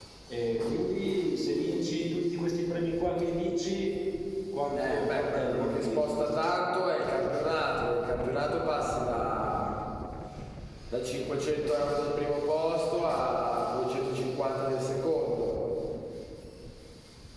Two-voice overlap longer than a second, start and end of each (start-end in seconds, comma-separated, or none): 4.8-6.1